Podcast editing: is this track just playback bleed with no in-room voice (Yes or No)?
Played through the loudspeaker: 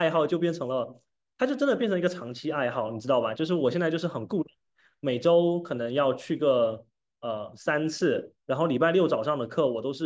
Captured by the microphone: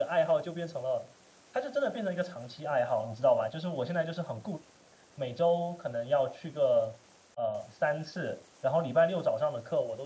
Yes